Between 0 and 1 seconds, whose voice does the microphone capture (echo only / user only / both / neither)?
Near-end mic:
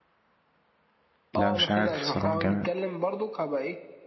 neither